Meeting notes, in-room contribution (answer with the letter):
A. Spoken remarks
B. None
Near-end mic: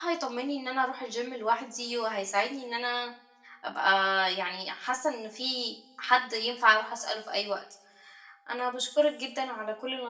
A